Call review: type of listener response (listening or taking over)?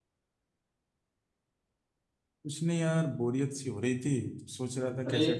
listening